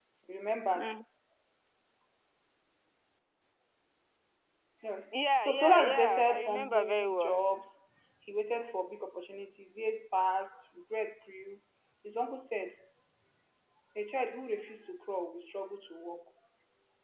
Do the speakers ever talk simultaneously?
Yes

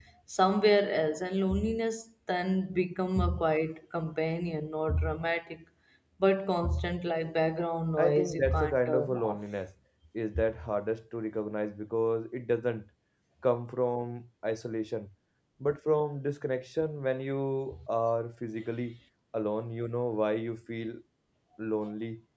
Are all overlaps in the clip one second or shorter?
No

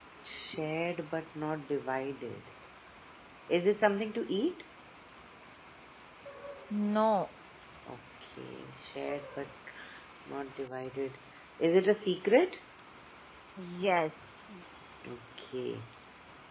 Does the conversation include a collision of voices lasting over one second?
No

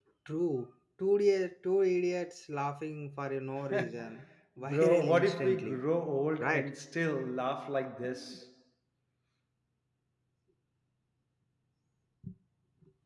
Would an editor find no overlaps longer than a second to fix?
No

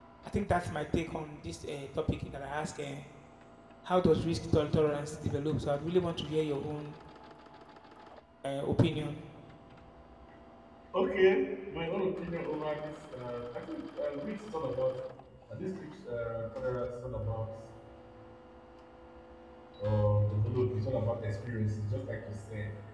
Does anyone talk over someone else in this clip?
No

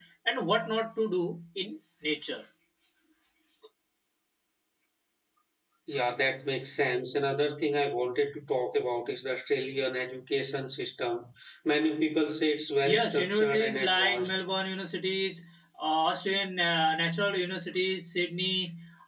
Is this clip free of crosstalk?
No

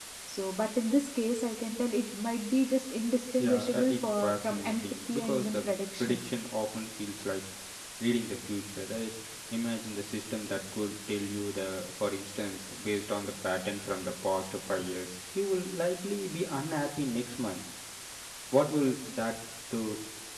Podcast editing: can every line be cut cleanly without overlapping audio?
No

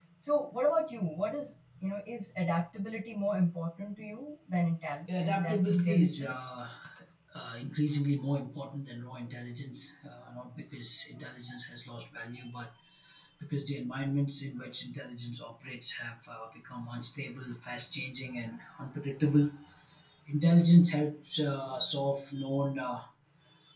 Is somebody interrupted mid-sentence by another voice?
Yes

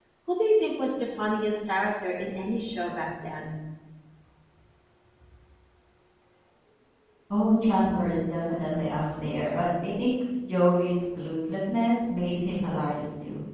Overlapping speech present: No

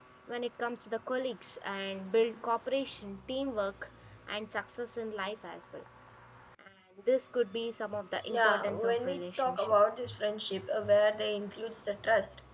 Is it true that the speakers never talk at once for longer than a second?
No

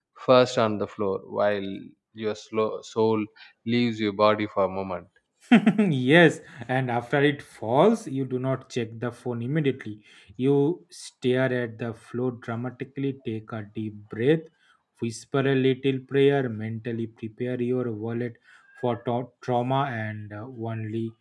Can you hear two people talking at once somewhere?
No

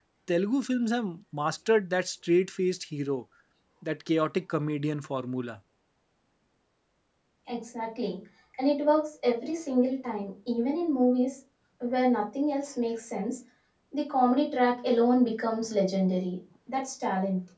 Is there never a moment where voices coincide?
Yes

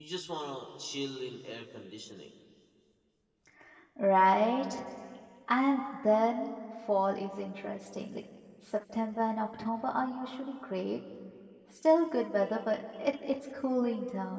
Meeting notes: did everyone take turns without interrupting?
Yes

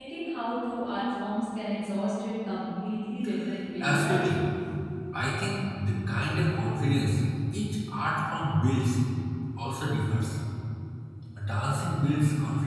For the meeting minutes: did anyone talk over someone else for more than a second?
No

